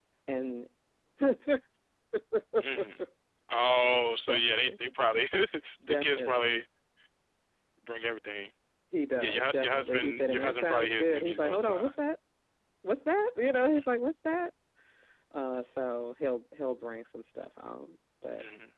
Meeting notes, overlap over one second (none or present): present